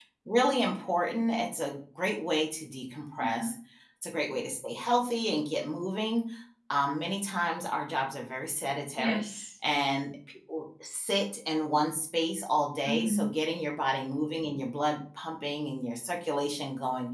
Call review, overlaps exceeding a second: none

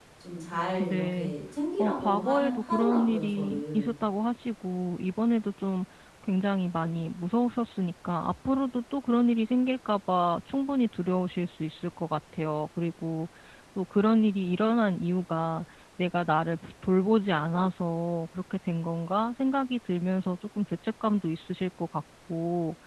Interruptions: present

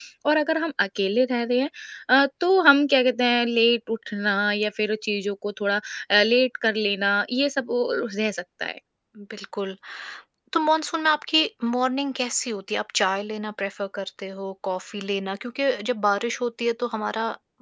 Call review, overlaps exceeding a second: none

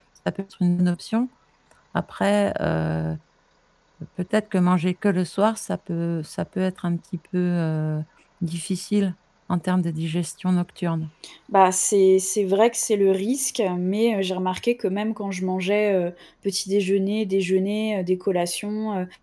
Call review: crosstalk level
none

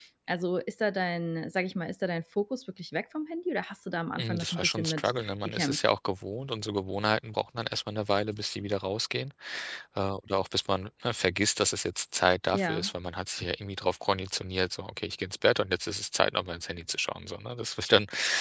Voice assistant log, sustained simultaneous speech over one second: present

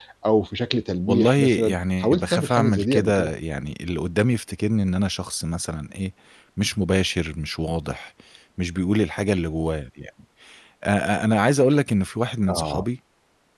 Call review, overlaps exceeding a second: present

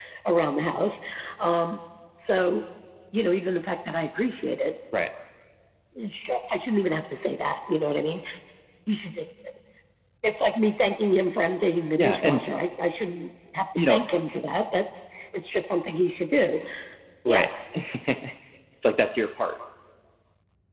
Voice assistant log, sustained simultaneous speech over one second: none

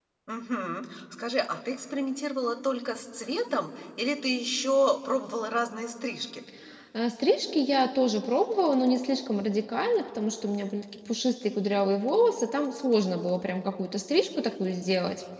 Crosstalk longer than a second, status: none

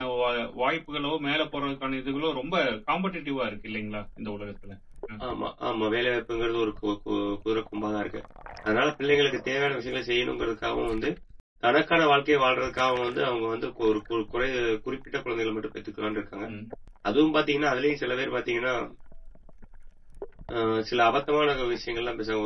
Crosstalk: none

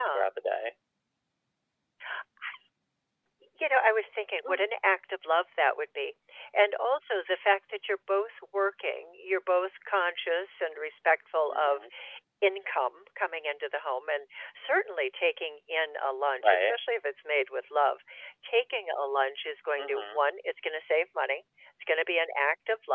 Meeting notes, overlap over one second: none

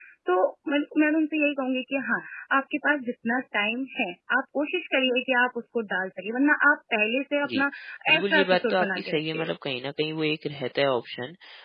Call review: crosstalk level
present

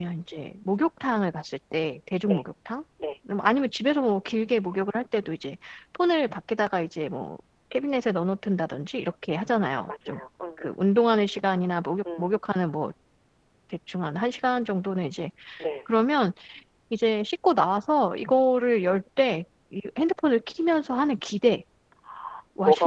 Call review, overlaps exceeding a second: none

